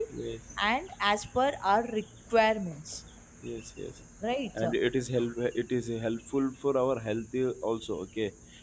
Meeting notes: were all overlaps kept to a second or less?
Yes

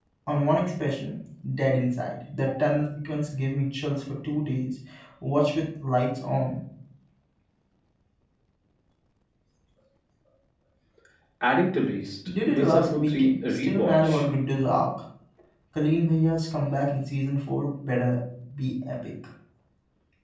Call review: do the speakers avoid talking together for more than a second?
No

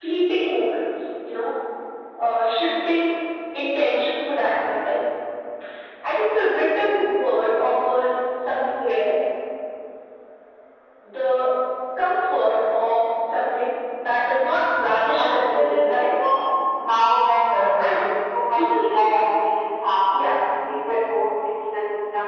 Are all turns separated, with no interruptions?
No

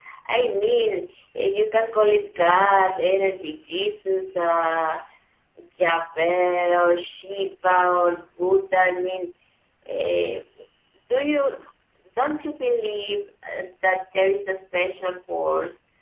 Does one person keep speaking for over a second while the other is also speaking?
No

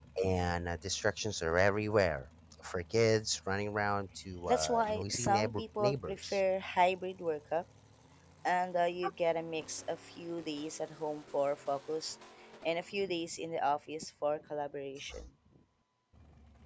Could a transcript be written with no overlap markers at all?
No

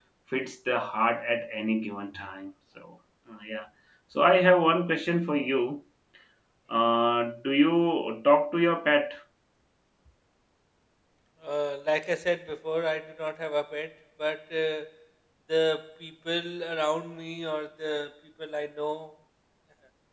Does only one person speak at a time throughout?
Yes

